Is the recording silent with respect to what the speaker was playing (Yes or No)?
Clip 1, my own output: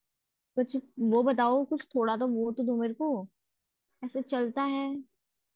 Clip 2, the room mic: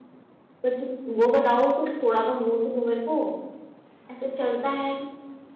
No